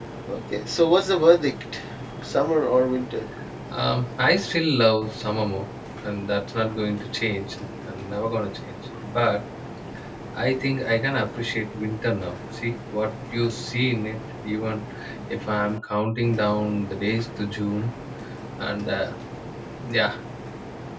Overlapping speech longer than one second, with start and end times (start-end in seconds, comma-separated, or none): none